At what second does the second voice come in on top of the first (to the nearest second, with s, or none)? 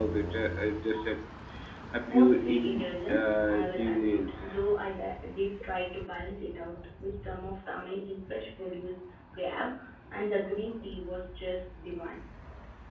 2 s